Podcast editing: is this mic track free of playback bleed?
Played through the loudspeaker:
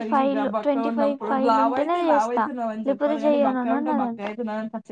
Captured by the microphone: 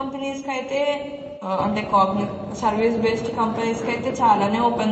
Yes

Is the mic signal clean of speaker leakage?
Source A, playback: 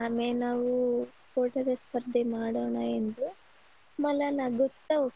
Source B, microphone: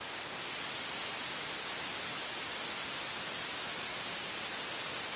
Yes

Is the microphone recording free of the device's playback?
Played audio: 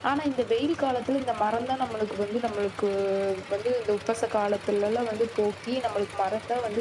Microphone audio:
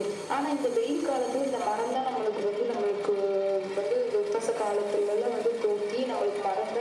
No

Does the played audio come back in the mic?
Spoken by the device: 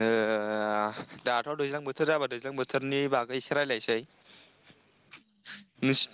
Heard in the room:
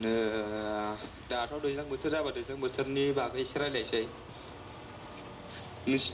Yes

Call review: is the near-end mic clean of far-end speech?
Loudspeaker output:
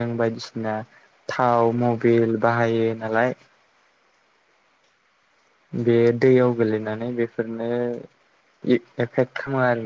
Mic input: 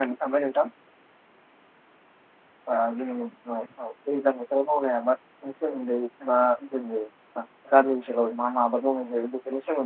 Yes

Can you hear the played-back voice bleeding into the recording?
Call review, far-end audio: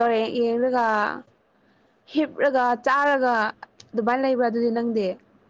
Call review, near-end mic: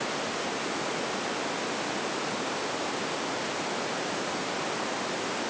No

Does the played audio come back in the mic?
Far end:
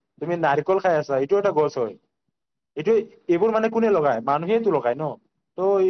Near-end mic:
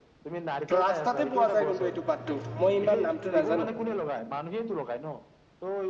Yes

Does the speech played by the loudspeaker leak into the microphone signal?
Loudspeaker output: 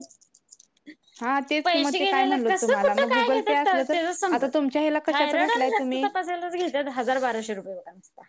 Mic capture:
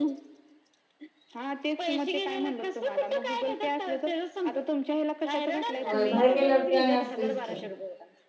Yes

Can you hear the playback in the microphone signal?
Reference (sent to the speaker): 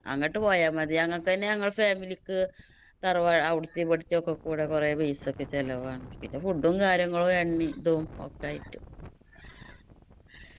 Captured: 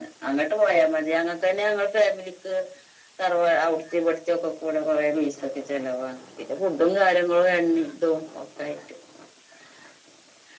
Yes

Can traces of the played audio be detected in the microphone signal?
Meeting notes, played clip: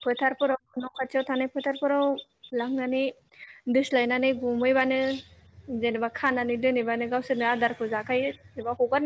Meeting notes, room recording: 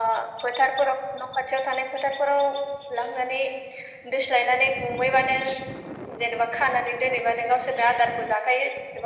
Yes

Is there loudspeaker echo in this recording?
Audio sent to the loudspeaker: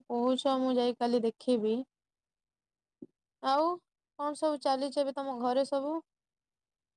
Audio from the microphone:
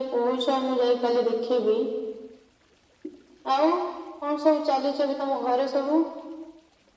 Yes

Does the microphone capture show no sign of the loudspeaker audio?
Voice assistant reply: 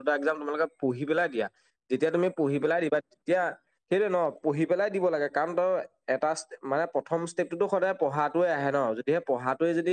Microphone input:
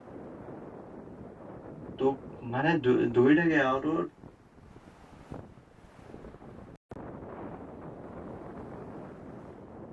Yes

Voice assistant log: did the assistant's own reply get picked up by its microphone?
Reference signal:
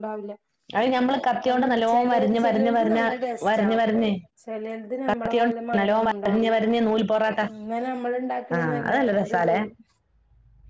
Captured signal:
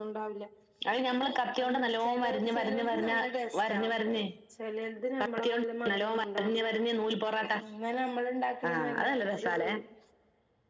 Yes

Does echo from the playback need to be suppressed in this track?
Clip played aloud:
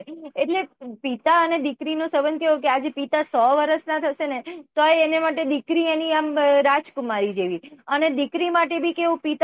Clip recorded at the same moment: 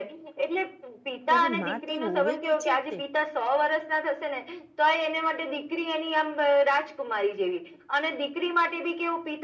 Yes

